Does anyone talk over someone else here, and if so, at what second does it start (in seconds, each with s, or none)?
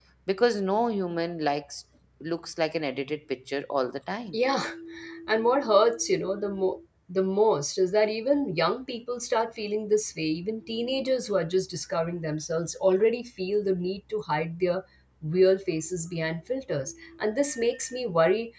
none